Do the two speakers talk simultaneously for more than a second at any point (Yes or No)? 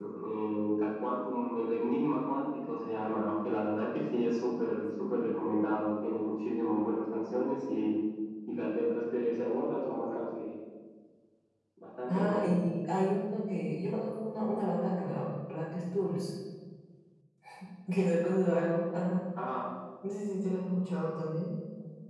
No